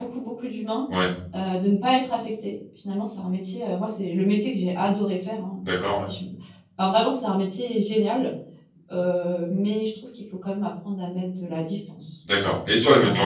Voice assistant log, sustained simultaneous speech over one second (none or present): none